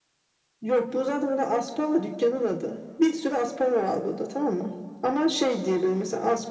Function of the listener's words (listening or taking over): listening